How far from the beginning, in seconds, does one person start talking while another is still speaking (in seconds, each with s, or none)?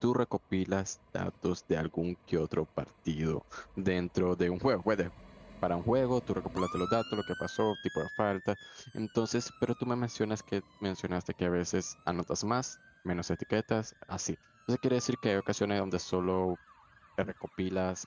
none